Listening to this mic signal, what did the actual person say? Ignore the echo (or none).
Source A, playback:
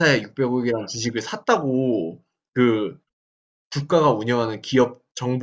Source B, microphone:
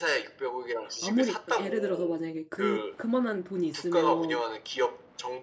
아무리 예를 들어서 만약에 그 그만한 돈이 있으면